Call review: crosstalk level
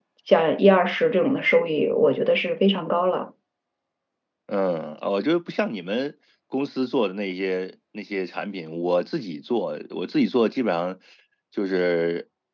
none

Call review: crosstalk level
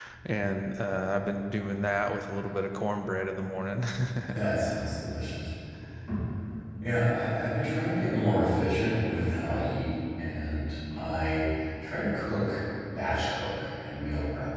none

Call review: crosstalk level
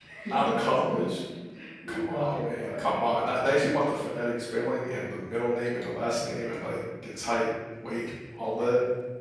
present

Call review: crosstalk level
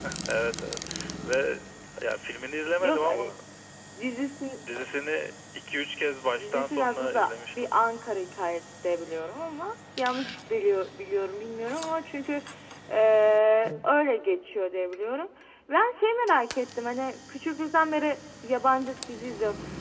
present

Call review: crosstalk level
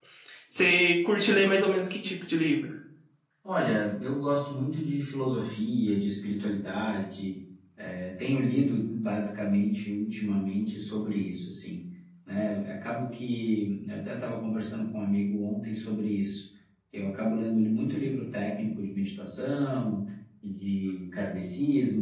none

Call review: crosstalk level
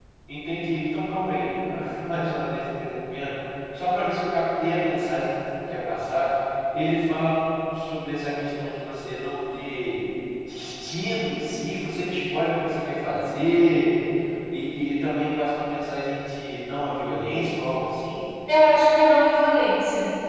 none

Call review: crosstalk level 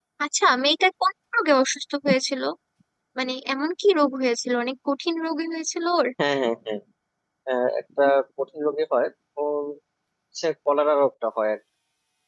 none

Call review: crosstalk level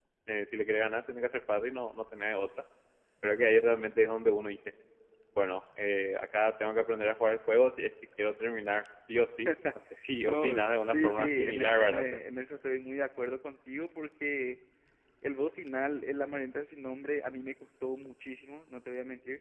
present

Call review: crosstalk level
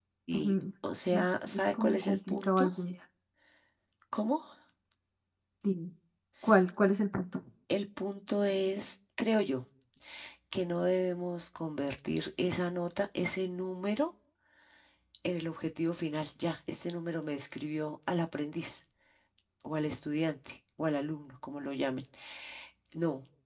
present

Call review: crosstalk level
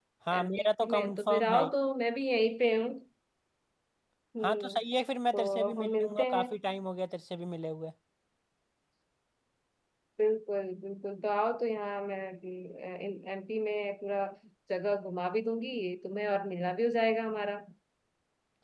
present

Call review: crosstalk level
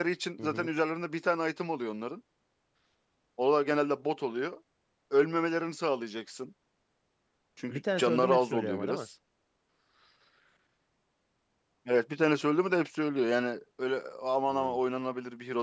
present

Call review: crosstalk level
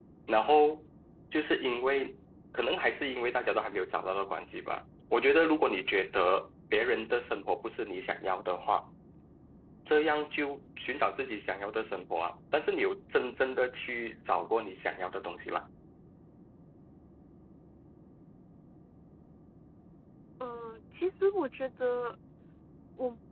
none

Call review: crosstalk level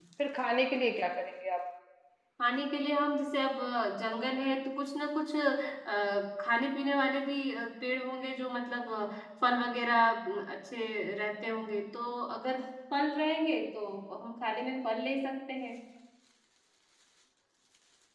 none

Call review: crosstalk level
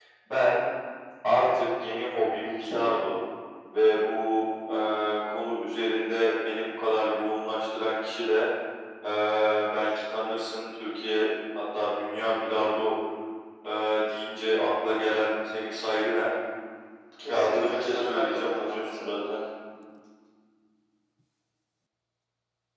present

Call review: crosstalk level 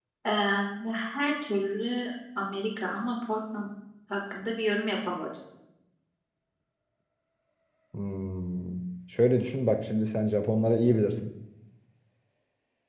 none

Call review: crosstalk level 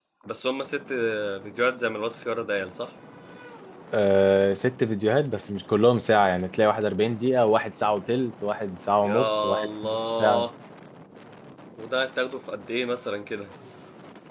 present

